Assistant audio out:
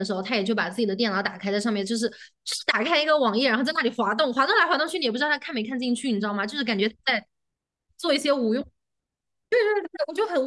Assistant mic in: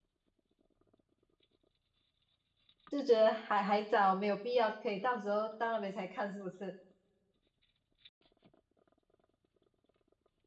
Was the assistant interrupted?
Yes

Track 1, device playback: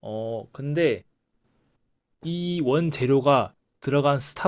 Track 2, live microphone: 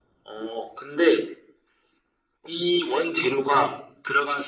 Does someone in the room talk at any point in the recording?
No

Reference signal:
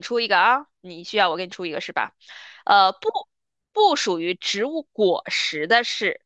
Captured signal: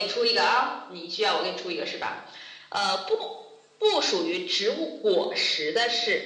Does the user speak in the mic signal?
No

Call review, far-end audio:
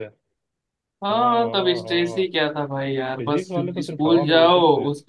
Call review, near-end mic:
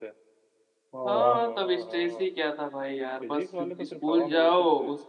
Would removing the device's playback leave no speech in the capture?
No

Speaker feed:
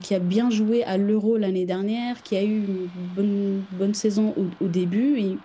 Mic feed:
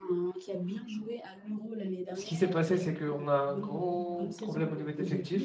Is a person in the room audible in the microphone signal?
Yes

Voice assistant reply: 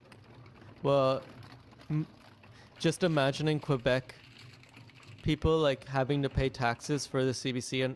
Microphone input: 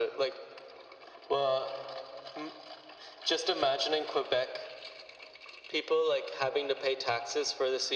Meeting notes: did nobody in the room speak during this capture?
Yes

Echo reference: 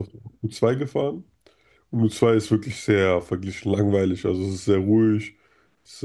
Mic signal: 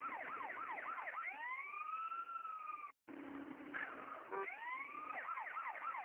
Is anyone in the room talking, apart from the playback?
No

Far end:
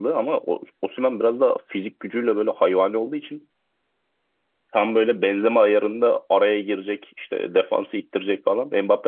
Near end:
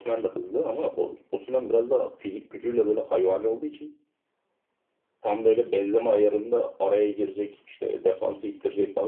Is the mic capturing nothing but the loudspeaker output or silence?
Yes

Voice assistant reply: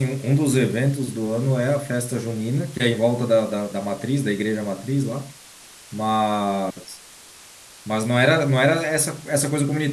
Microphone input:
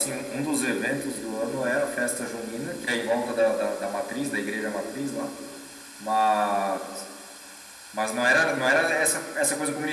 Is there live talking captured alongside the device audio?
No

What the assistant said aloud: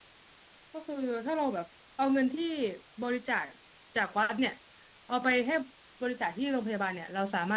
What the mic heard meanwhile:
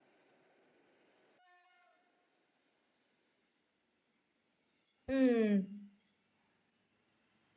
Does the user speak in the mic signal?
Yes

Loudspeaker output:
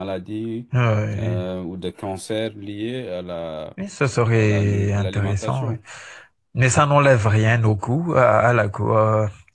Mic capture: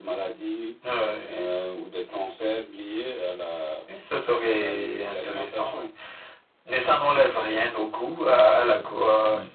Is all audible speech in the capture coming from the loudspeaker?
No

